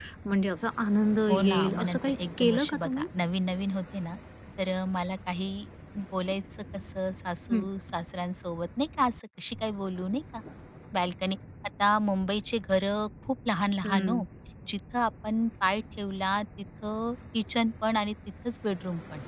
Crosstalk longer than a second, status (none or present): present